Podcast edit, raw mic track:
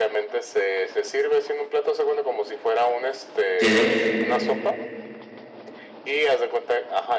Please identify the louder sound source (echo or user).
user